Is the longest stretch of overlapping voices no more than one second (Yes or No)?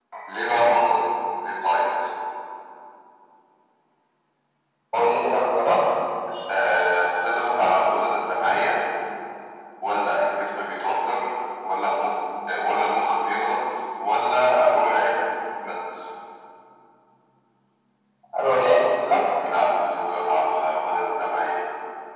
Yes